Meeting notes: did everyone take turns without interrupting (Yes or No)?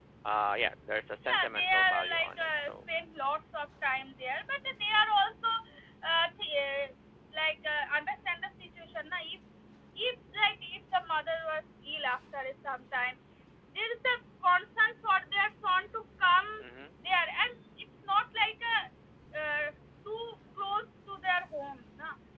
No